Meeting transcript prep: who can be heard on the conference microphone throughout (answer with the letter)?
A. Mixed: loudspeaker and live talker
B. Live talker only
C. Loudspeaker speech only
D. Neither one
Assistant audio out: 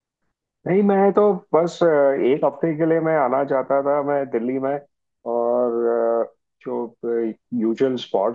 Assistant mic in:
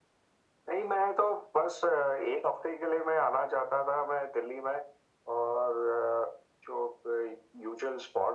C